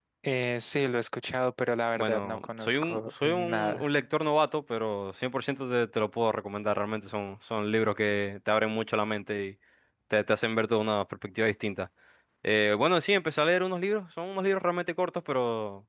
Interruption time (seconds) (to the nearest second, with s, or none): 2 s